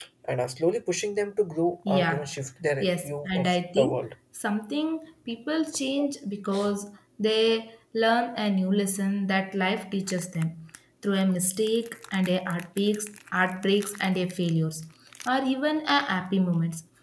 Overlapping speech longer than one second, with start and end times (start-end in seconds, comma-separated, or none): 2.8-4.0